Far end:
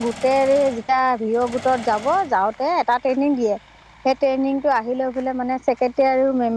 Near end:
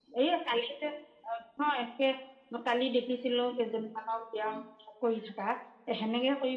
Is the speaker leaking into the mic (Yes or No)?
No